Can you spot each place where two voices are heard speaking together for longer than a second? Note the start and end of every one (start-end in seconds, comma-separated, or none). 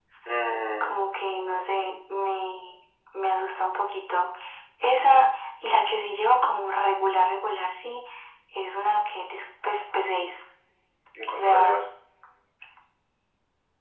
none